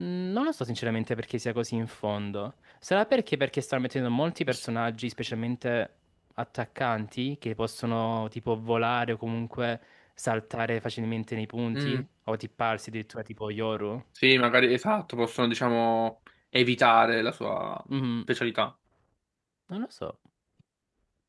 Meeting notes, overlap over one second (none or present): none